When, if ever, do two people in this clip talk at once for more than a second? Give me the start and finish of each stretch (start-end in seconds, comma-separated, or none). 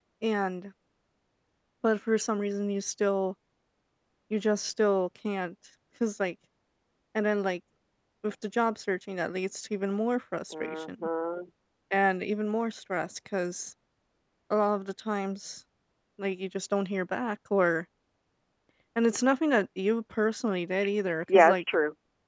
none